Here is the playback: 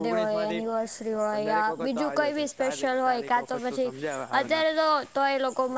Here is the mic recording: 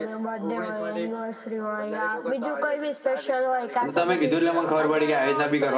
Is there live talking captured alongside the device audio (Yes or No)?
Yes